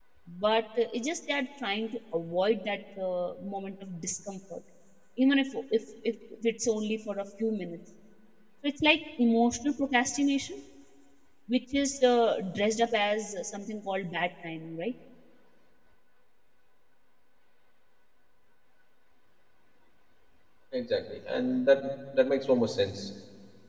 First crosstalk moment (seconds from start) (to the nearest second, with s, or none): none